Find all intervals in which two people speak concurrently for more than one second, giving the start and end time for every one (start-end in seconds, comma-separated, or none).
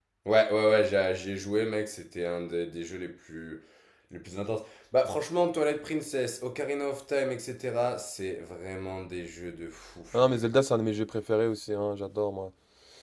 none